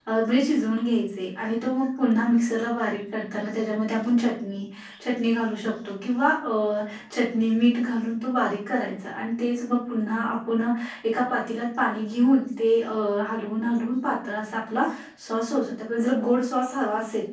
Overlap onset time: none

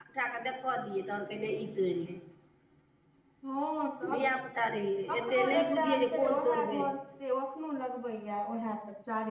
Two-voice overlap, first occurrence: 5 s

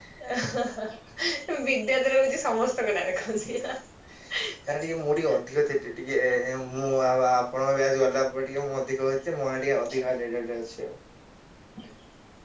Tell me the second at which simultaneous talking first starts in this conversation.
none

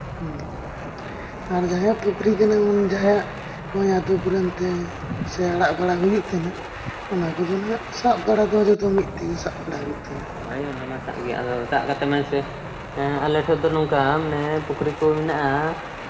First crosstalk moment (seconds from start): none

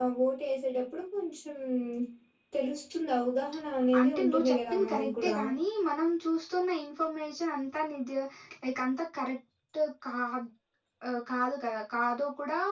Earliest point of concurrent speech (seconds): 4 s

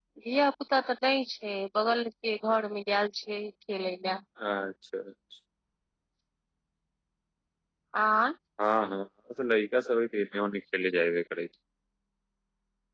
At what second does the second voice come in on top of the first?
none

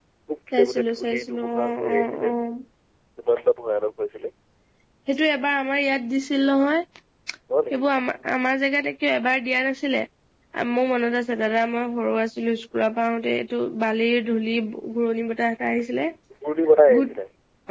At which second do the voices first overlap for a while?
1 s

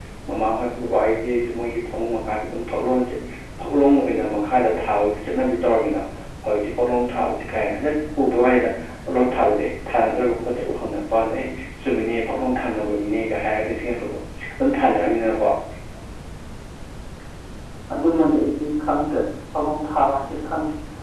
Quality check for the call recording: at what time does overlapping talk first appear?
none

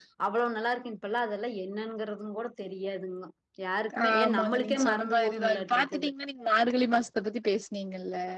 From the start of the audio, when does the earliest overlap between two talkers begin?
4 s

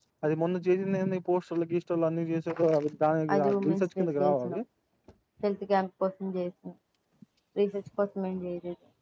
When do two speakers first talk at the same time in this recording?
3 s

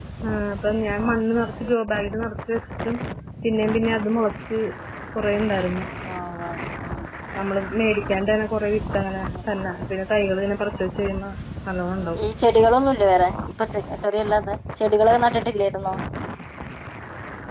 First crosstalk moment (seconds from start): none

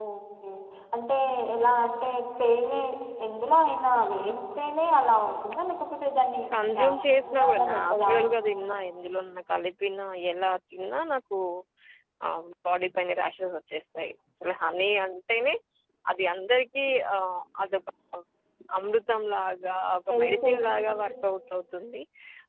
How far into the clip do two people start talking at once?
7 s

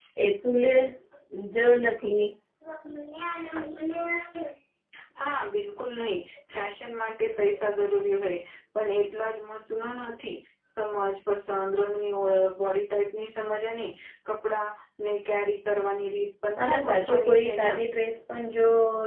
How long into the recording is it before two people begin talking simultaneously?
17 s

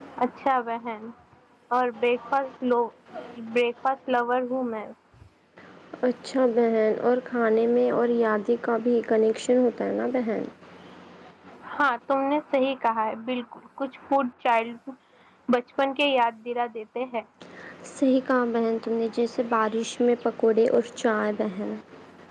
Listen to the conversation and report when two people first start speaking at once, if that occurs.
none

